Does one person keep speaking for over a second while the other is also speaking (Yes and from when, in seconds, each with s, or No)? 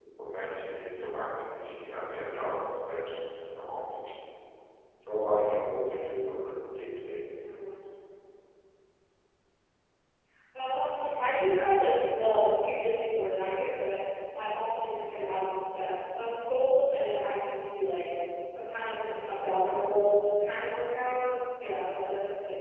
No